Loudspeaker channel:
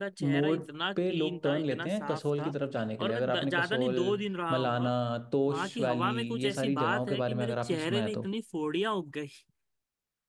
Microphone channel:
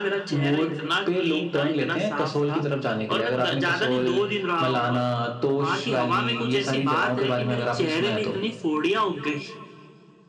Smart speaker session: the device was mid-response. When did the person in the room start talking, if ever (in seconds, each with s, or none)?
none